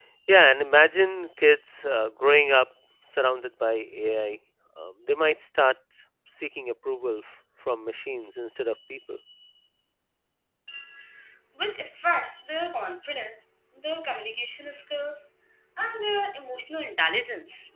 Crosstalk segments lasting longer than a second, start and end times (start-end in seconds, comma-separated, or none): none